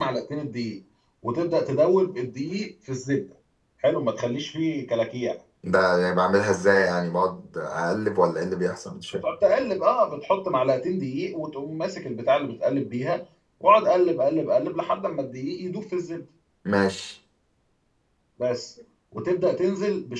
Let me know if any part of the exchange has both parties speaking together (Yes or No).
No